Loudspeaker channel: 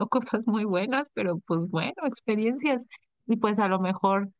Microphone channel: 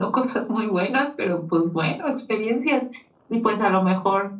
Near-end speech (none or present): none